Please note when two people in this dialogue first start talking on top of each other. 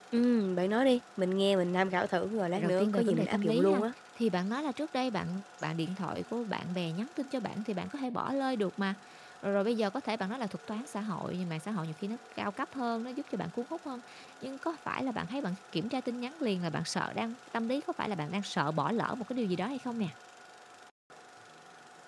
2.5 s

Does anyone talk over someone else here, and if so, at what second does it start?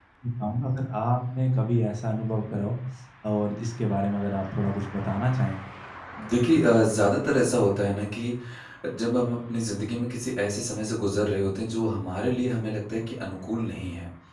none

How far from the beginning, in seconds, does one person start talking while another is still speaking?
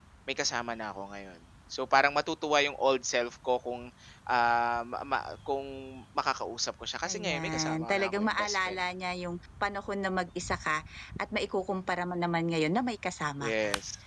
7.1 s

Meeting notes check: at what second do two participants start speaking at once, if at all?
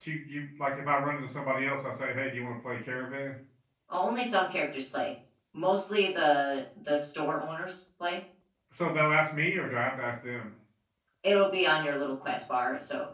none

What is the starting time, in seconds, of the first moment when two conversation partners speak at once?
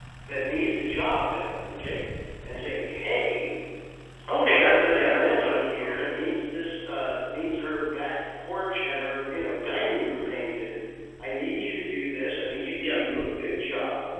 4.4 s

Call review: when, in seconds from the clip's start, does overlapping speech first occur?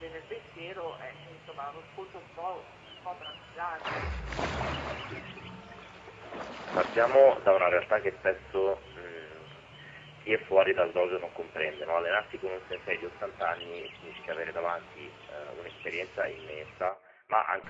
none

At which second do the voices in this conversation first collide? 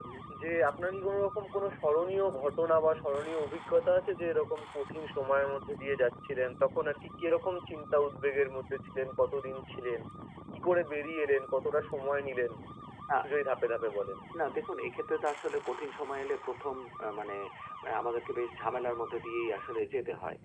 none

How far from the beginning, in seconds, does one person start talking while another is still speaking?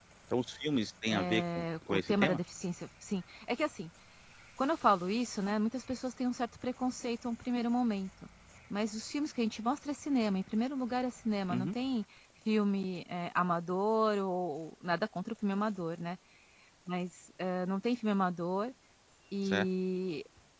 1.1 s

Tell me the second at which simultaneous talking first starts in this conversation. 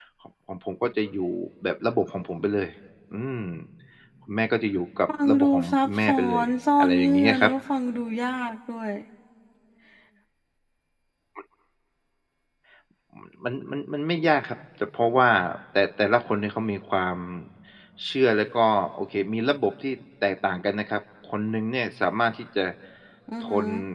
5.1 s

